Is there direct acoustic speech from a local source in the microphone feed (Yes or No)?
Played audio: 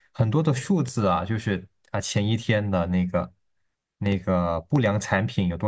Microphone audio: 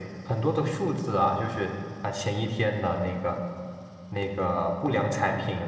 No